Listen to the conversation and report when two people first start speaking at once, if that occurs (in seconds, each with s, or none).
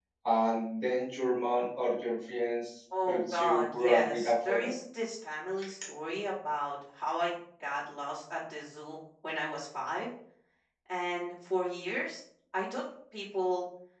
2.9 s